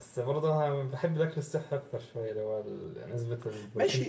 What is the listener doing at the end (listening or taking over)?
taking over